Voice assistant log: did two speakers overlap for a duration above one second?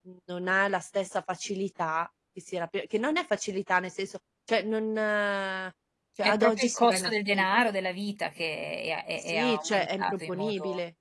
Yes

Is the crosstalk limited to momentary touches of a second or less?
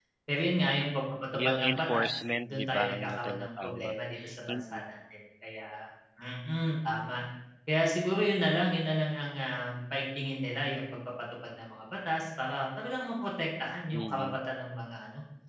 No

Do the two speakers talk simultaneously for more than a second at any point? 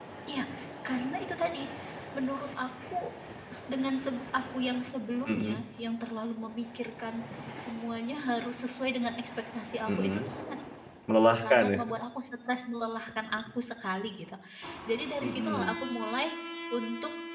No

